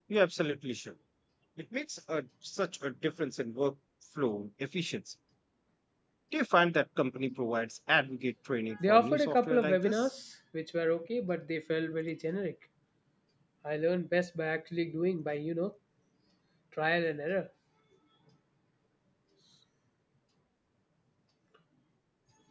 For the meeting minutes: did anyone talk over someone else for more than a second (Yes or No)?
Yes